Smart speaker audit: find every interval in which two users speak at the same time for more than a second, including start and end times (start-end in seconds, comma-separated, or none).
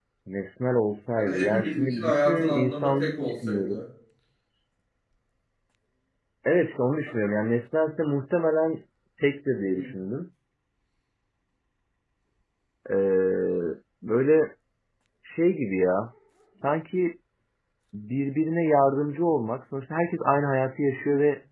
1.1-3.8